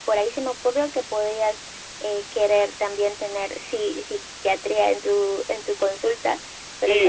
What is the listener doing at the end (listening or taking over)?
taking over